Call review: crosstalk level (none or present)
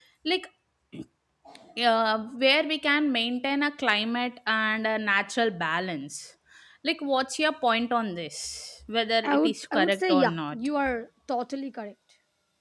present